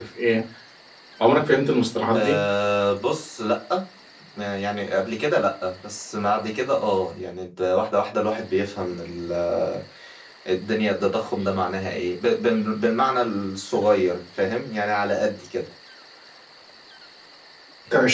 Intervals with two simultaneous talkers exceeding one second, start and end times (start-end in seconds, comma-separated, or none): none